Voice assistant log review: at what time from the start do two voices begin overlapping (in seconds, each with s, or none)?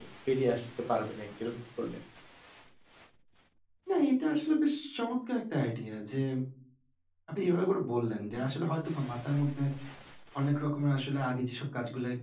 none